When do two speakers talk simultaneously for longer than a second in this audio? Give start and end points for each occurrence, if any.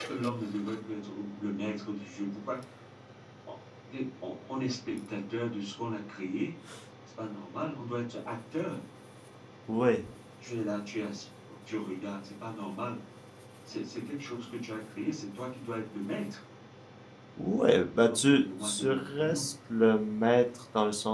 18.1-19.4

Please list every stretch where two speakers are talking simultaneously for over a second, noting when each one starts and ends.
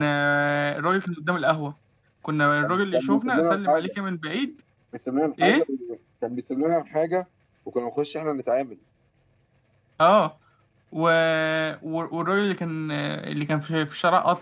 2.6-3.9

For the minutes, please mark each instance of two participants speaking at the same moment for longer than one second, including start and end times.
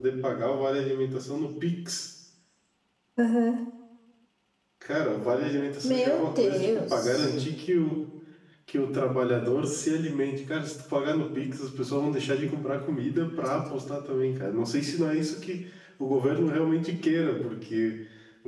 5.8-7.3

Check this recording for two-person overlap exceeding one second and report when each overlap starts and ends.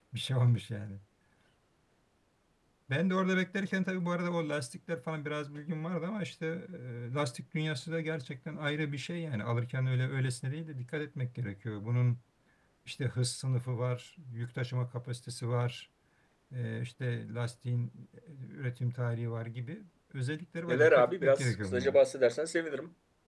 20.7-22.0

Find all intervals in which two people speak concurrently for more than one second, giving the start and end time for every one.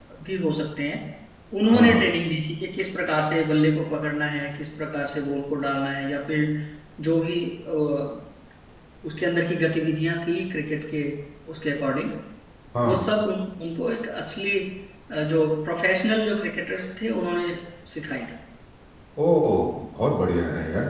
none

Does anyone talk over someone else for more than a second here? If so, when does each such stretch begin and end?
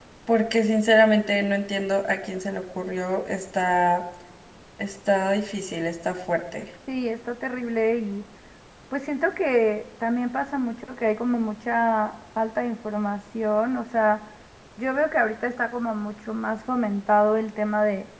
none

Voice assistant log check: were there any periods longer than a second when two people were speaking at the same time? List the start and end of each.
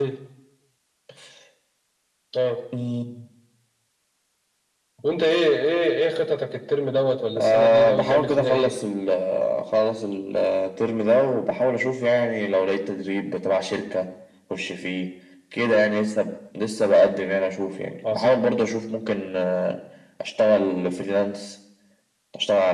7.3-8.7

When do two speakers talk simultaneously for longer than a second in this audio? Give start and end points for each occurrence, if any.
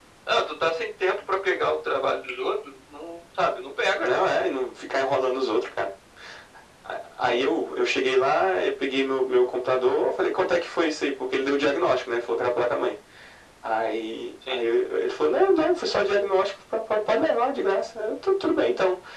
none

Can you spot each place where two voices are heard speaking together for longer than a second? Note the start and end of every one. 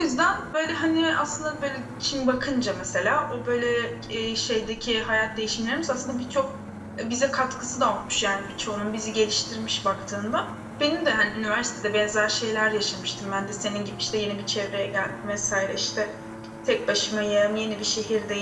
none

